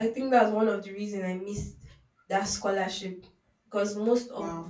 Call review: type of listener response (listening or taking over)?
listening